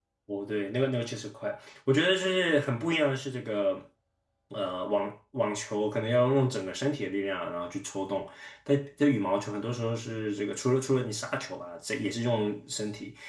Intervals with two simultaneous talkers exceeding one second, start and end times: none

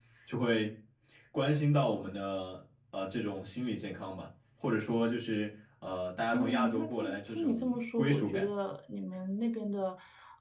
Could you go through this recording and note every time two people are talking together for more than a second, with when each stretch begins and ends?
6.3-8.5

